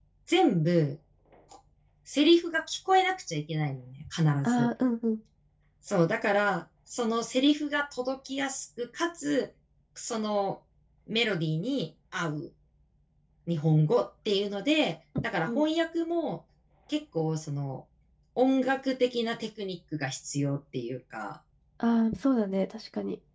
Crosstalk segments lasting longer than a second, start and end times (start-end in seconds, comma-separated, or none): none